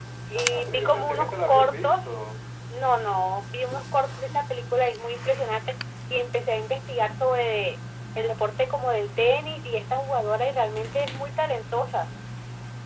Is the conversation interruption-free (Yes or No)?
No